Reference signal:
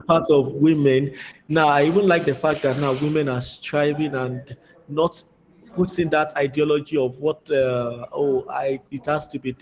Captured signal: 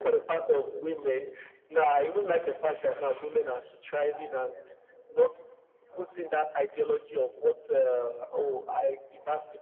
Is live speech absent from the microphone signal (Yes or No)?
Yes